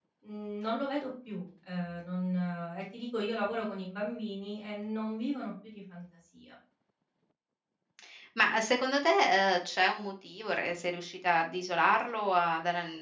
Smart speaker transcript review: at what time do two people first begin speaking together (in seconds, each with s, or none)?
none